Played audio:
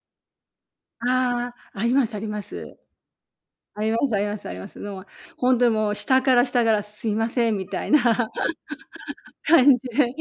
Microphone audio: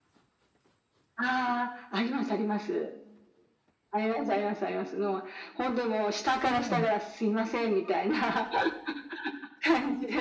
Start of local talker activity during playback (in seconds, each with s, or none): 6.4 s